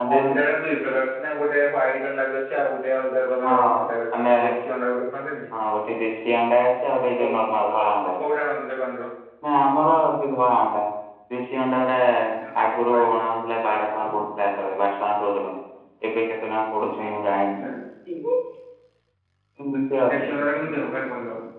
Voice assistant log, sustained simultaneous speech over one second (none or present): none